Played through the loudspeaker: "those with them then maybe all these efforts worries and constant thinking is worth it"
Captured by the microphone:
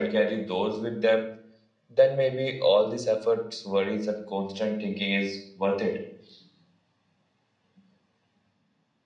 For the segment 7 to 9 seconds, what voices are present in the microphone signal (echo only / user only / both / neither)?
neither